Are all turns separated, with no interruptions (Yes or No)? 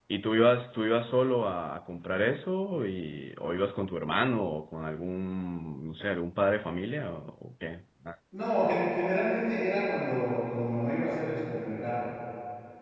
Yes